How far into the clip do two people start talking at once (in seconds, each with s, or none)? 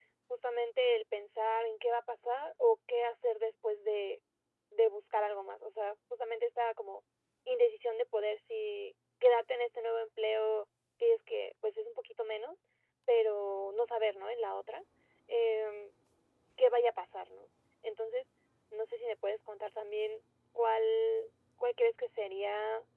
none